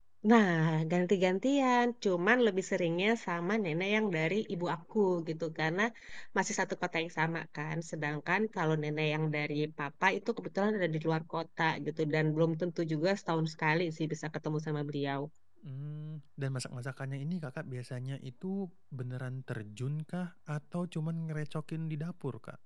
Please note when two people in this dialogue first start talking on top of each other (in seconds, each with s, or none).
none